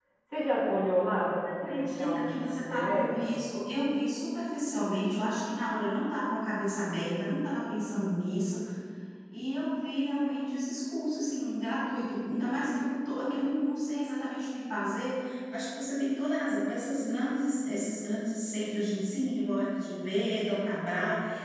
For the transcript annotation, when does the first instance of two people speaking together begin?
1 s

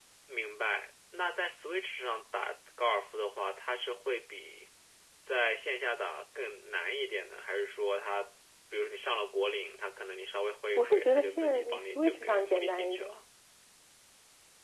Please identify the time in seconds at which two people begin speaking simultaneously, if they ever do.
11 s

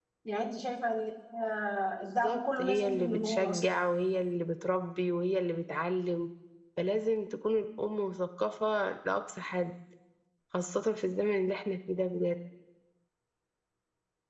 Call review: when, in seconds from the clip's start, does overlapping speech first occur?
2 s

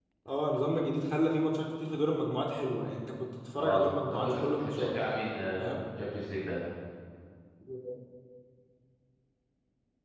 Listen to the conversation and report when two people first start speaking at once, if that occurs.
4 s

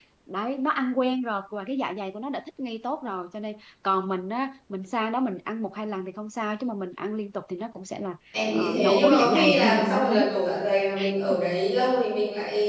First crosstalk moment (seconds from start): 9 s

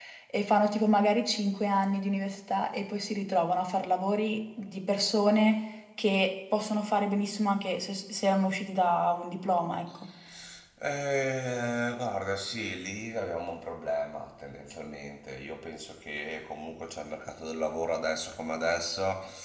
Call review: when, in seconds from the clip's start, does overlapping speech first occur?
none

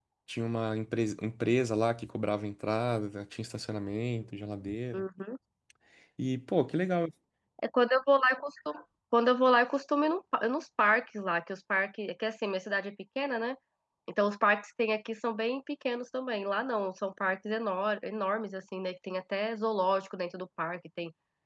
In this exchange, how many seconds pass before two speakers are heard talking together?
none

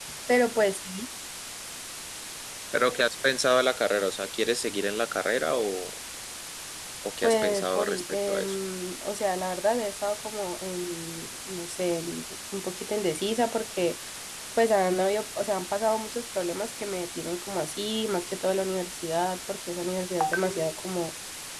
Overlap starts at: 7 s

